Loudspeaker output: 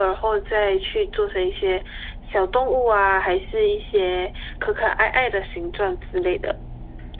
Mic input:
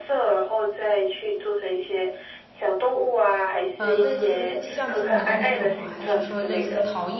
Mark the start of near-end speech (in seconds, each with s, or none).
3.8 s